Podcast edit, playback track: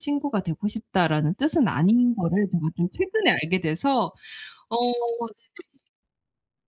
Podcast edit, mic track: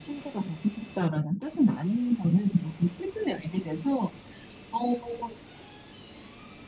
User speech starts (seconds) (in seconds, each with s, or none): none